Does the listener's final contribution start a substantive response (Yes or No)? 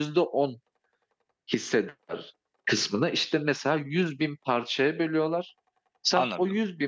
No